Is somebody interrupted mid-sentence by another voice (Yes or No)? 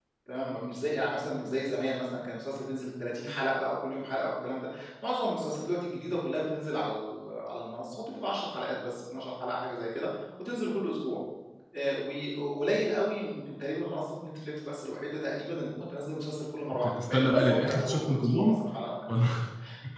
Yes